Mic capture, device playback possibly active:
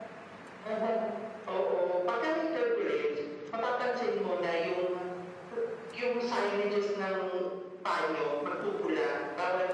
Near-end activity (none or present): none